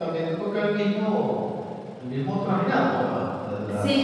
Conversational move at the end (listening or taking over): taking over